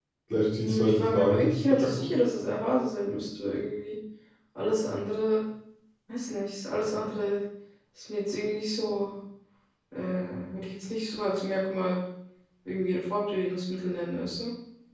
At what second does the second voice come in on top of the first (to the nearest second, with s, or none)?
1 s